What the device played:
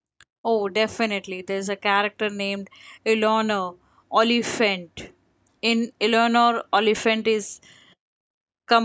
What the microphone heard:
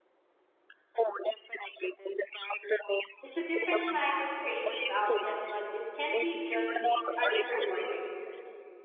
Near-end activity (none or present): present